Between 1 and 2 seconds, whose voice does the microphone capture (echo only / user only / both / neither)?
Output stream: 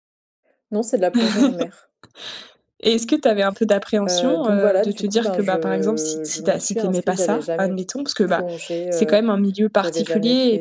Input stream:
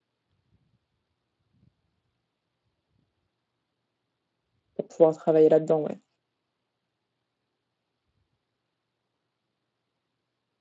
neither